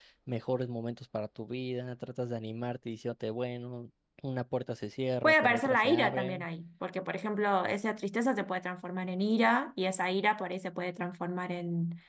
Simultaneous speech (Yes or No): Yes